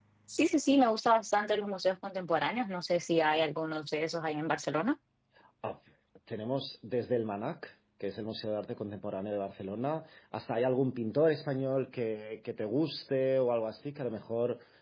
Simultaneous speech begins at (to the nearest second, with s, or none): none